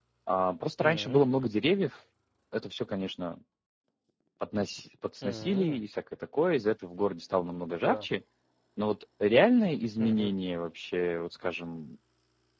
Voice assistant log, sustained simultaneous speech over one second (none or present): none